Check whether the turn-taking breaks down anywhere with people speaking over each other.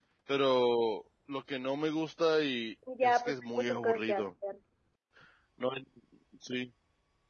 Yes, from 2.9 s

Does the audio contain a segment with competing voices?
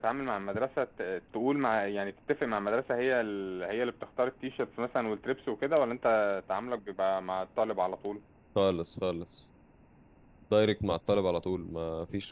No

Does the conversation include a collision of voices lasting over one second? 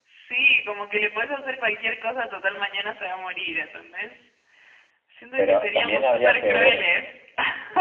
Yes, from 5.4 s

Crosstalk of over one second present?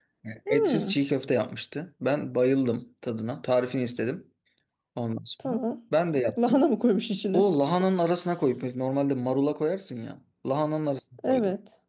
No

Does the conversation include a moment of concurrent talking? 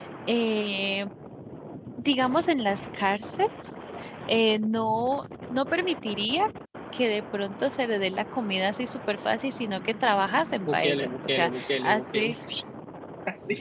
Yes, from 10.7 s

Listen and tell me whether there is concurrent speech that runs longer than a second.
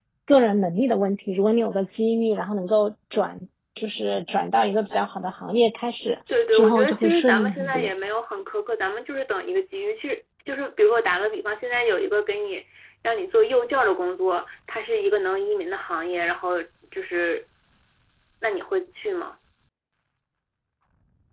Yes, from 6.5 s

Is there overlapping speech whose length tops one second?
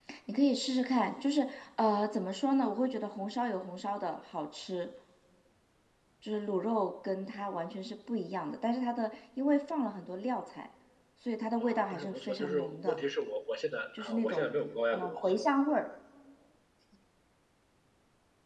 Yes, from 11.6 s

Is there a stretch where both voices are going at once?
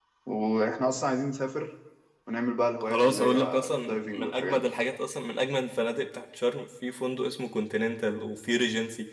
Yes, from 2.8 s

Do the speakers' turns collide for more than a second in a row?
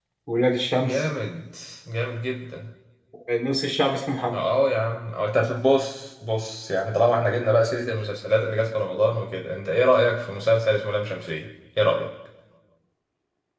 No

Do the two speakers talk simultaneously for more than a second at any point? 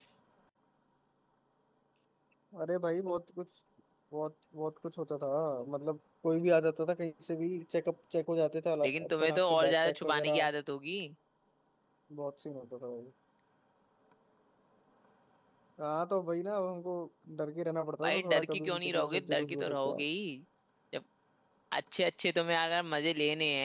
Yes, from 8.8 s

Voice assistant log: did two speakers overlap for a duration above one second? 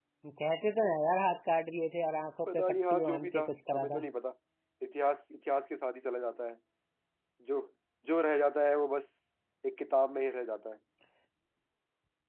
Yes, from 2.5 s

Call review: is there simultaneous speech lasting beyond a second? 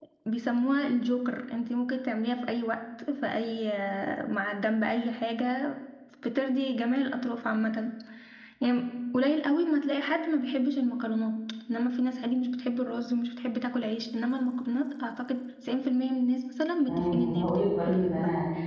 Yes, from 16.9 s

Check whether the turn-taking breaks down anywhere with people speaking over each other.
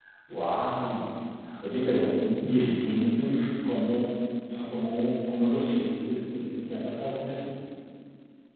No

